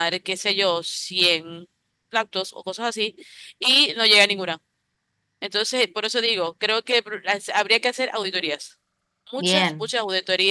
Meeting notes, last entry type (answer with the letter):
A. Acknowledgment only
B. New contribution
A